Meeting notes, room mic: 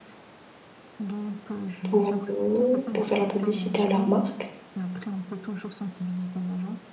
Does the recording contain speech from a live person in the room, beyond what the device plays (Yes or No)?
Yes